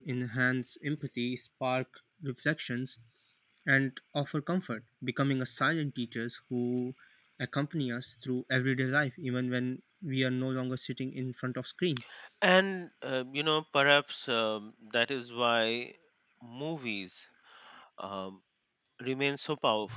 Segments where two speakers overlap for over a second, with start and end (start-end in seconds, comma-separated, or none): none